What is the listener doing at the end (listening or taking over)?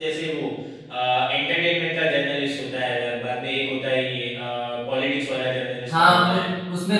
taking over